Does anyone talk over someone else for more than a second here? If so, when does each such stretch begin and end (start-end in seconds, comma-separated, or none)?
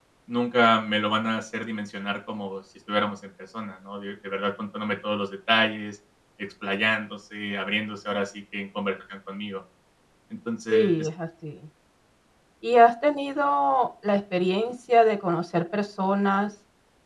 none